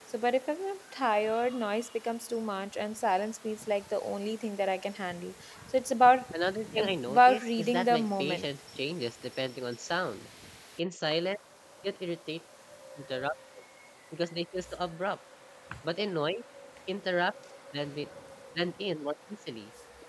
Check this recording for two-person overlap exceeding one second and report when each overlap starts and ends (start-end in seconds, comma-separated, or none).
6.8-8.4